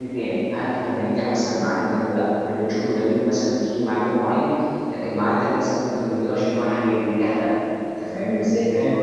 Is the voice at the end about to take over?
No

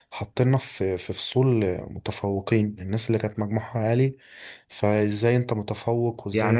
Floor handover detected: Yes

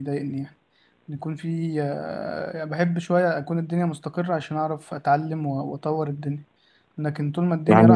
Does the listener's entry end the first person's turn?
Yes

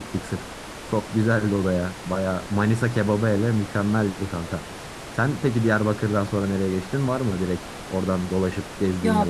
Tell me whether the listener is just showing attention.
No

